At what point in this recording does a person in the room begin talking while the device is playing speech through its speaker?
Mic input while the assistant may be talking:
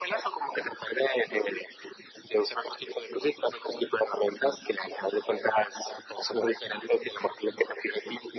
none

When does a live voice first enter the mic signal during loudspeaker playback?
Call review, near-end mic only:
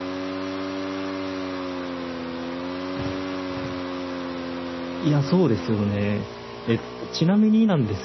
5.0 s

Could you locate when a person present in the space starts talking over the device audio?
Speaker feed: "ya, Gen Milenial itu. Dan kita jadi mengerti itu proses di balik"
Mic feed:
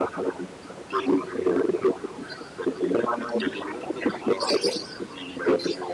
3.1 s

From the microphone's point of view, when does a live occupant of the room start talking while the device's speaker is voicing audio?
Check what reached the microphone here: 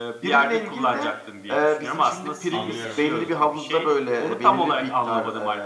2.5 s

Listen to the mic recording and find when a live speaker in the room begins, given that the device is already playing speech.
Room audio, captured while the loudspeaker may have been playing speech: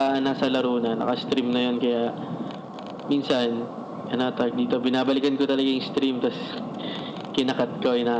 none

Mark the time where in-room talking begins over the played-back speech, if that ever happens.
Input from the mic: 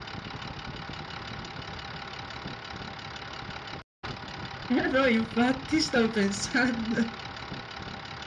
4.7 s

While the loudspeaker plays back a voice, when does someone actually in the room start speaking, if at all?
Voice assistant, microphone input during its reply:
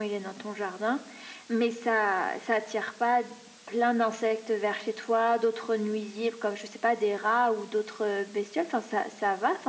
none

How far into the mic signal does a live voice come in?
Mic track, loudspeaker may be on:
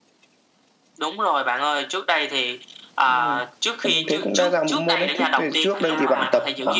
5.7 s

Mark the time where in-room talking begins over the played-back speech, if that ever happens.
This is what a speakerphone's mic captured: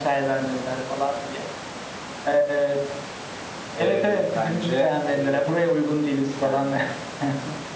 3.7 s

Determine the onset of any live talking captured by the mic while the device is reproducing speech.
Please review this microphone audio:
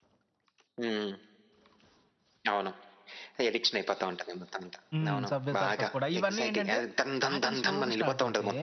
4.9 s

